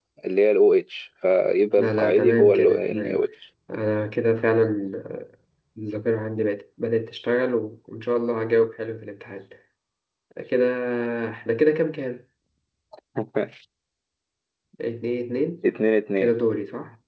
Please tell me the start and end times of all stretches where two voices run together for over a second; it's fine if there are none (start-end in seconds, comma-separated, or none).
1.8-3.2